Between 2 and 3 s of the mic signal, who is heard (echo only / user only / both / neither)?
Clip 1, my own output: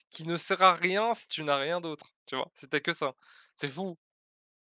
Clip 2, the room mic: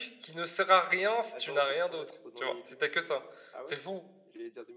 both